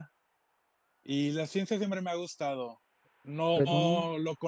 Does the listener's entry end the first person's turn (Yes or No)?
No